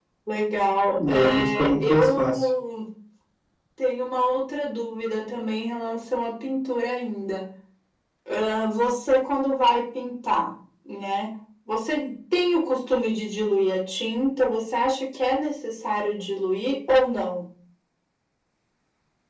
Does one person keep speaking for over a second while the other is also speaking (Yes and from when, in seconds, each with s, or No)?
Yes, from 0.9 s